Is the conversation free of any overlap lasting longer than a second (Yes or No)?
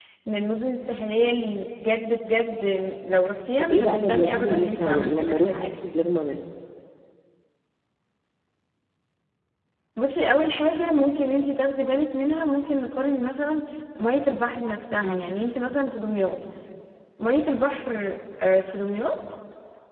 No